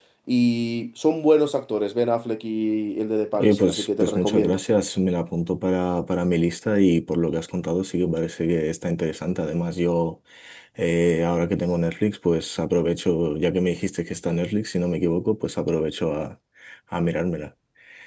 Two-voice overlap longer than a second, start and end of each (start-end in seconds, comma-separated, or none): 3.4-4.6